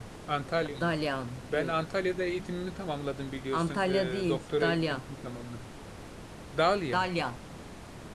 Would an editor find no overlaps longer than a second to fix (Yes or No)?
No